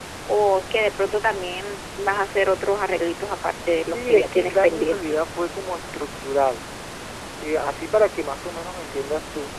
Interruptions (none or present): present